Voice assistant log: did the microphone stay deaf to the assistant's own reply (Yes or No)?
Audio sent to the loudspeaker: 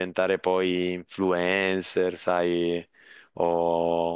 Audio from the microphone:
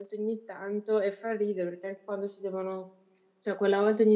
Yes